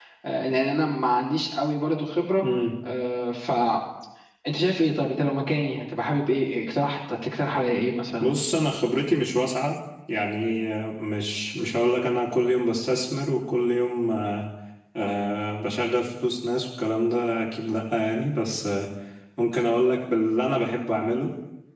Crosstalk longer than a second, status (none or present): none